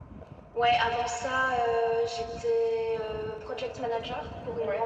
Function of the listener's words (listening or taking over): listening